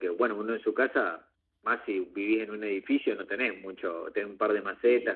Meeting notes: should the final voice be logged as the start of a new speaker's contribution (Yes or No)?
No